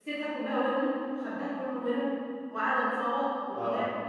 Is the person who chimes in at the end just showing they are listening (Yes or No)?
No